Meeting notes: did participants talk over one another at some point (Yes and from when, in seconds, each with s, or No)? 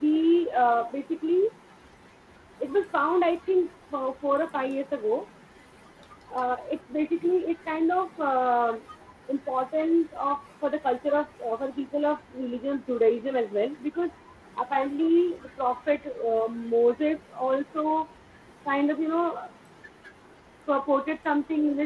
No